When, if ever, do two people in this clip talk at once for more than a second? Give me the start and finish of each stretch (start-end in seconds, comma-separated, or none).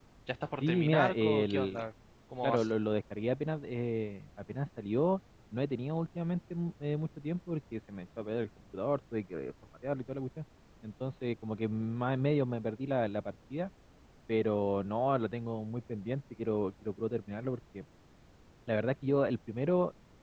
0.6-1.8